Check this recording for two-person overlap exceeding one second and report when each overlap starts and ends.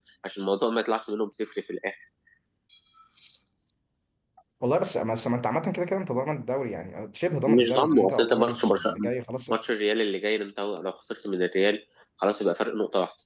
7.5-9.1

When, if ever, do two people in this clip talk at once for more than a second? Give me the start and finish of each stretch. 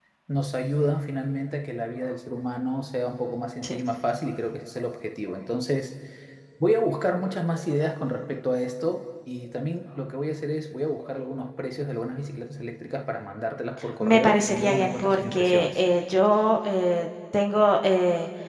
14.0-15.8

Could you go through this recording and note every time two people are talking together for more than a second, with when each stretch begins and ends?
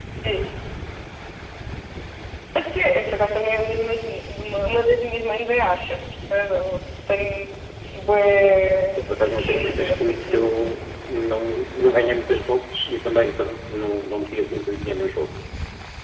9.0-10.4

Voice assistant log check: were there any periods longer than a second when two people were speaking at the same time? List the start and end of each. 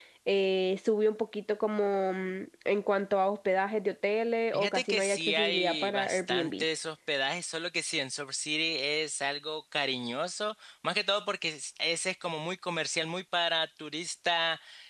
4.5-6.6

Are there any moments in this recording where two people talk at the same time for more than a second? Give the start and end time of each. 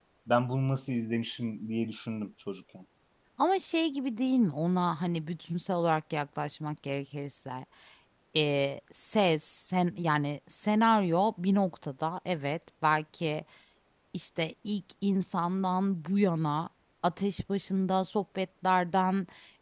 none

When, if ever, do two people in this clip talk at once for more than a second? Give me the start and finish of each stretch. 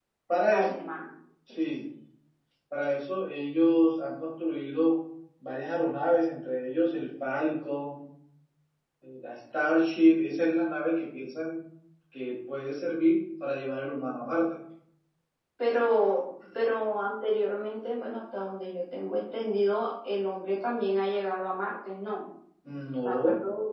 none

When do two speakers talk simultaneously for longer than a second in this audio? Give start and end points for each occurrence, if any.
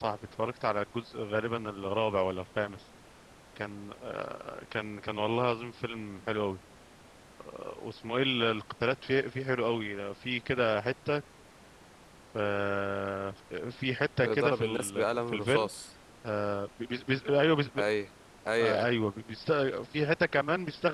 14.2-15.7

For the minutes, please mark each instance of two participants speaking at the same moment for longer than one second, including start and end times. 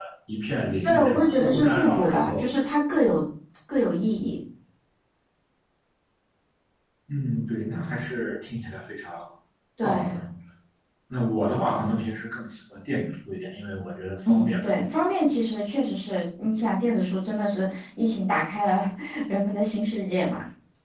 0.8-2.5

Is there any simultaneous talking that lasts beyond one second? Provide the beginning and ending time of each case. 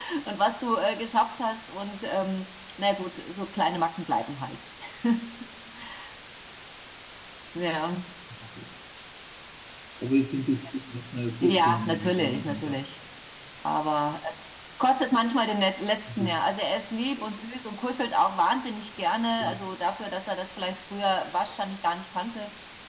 11.4-12.8

